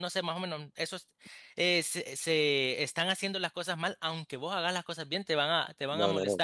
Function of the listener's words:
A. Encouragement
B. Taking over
B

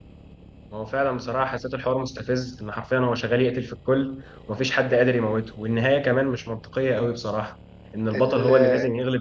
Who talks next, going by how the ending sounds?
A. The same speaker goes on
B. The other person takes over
A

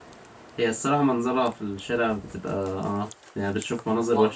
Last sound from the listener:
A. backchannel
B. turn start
B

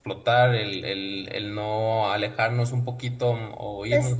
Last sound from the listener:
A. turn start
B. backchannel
B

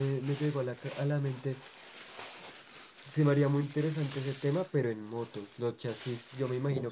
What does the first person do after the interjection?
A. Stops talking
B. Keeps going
B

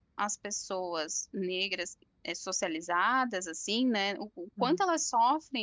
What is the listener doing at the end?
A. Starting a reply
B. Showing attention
B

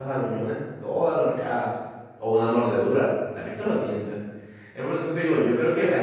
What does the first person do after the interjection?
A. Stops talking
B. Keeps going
A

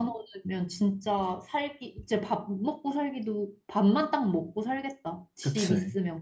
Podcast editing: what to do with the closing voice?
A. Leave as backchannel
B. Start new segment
B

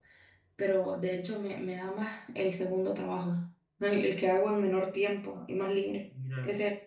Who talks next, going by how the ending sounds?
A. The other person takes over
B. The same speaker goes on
B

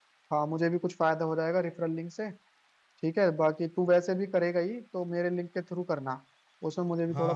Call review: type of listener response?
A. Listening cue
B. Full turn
B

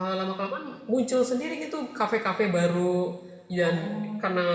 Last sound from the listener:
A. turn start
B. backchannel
B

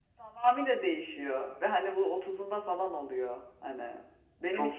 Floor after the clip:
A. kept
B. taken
A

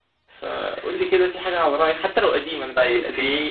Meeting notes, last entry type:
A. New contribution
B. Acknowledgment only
A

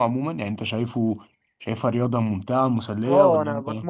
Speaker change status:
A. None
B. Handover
B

